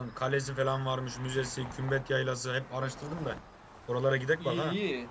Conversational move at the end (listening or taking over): taking over